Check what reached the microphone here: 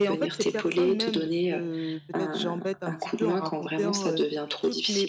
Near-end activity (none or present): present